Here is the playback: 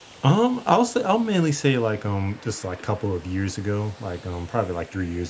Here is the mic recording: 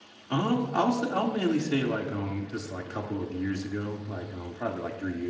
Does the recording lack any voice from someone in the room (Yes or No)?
Yes